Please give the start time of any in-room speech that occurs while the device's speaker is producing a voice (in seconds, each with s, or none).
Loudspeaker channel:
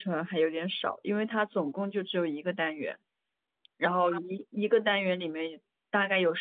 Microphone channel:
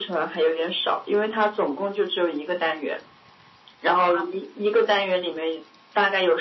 none